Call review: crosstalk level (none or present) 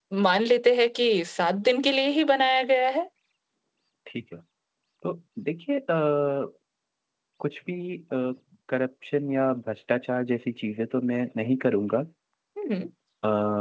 none